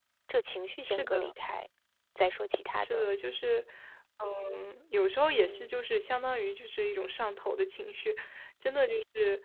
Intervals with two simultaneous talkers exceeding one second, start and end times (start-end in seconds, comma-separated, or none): none